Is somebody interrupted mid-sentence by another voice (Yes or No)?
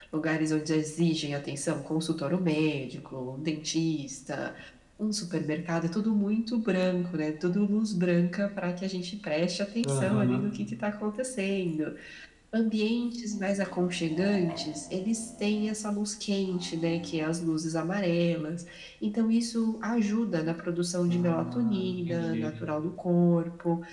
Yes